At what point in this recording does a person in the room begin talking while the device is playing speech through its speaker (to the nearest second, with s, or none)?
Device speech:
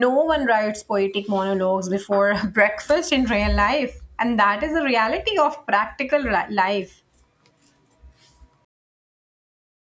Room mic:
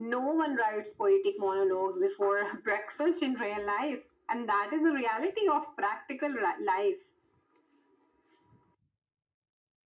none